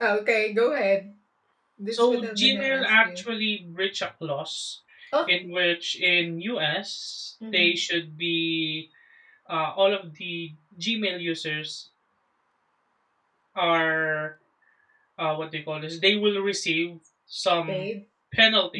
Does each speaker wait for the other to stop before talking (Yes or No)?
No